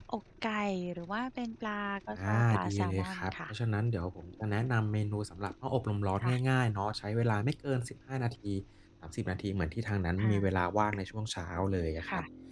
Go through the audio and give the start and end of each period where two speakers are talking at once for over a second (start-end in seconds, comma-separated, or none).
2.1-3.5